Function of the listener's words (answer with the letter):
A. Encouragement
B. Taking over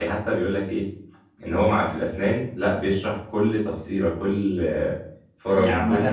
B